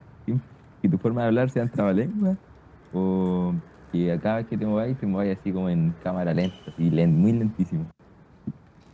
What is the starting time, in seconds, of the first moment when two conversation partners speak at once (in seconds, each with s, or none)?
none